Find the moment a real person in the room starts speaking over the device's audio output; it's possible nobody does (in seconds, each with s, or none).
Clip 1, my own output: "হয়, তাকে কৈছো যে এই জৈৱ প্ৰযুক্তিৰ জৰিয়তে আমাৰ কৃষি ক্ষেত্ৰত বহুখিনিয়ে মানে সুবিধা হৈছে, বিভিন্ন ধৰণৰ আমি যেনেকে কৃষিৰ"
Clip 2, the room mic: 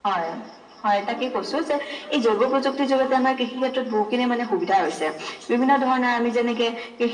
none